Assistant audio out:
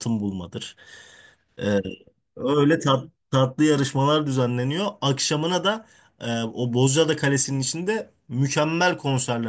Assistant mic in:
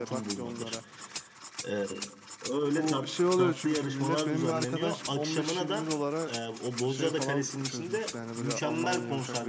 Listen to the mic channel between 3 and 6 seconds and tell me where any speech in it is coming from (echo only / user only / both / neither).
both